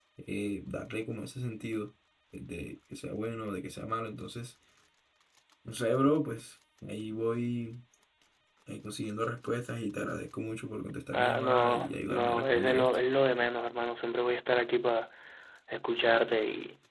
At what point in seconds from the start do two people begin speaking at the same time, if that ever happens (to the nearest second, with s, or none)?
11 s